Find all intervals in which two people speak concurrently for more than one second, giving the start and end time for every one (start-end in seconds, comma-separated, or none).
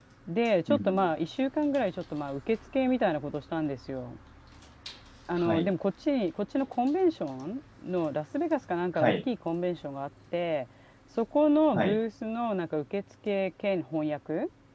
none